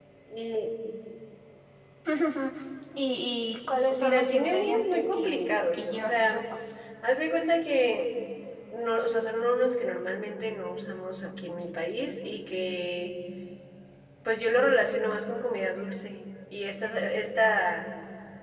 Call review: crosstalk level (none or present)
present